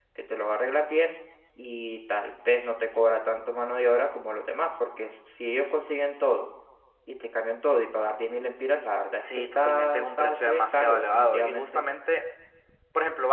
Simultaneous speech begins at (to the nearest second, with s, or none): 9 s